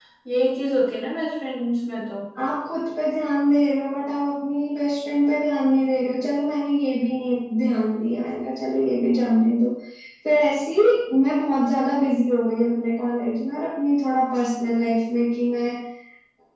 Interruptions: none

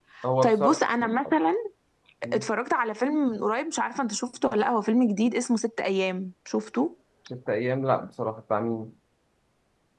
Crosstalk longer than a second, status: none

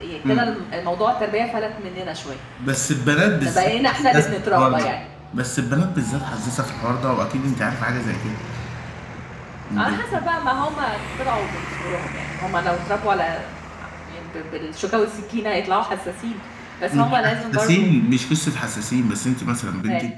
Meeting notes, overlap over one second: present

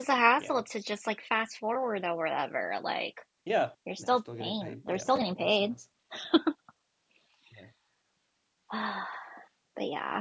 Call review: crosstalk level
present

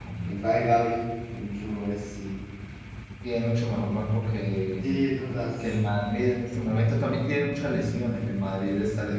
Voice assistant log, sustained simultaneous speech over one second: none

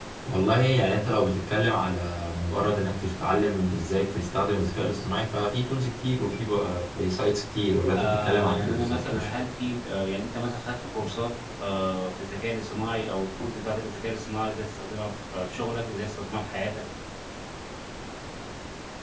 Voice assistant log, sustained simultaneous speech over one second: present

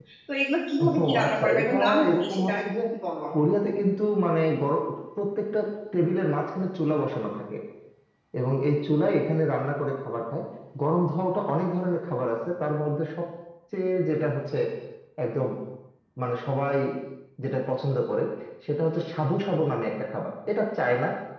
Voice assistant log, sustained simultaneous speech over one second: present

